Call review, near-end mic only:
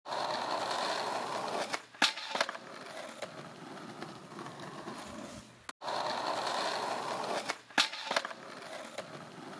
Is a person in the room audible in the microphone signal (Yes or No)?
No